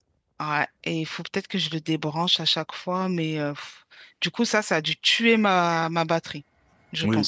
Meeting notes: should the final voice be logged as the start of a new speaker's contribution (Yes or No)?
Yes